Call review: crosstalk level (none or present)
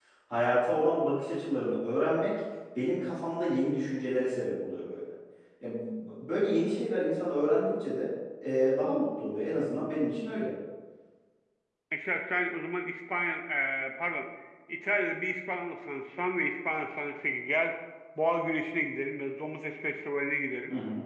none